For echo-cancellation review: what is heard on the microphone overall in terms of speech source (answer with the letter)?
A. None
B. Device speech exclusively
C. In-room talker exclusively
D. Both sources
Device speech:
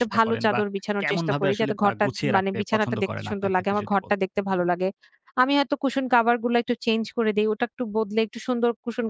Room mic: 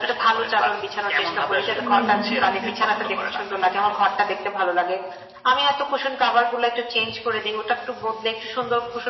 D